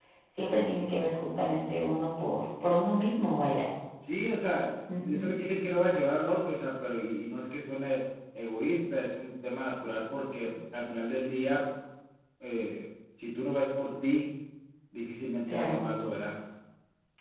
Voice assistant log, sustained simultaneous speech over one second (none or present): none